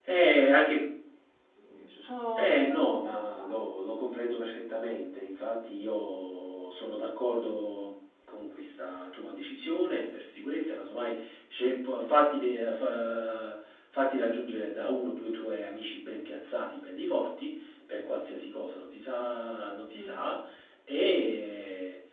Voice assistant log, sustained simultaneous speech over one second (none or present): present